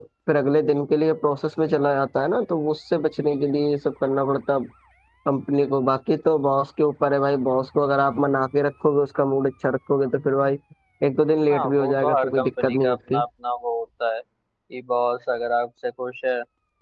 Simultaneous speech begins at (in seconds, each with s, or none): 11.5 s